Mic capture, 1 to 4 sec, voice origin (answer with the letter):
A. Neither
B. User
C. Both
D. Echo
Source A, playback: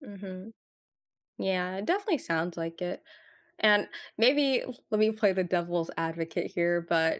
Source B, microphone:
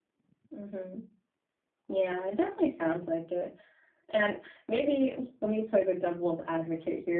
D